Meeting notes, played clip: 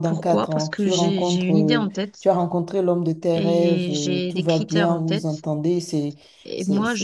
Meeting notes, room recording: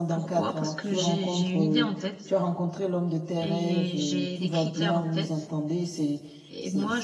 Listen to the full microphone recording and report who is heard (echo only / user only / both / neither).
echo only